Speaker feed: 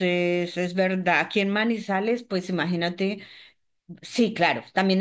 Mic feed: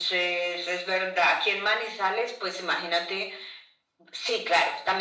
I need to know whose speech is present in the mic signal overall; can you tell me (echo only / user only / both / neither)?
echo only